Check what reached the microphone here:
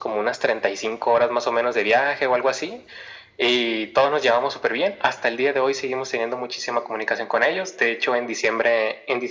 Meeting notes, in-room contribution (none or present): none